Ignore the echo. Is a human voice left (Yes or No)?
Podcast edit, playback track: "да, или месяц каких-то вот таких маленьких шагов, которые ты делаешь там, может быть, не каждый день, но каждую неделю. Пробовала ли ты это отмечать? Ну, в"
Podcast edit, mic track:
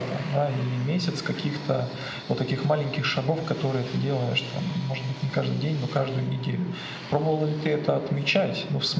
No